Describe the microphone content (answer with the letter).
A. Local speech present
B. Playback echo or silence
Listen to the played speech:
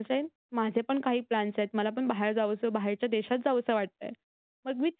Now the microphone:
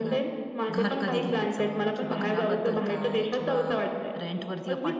A